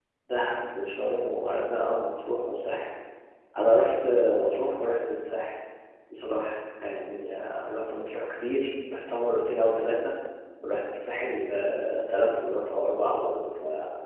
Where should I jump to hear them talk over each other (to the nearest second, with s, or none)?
none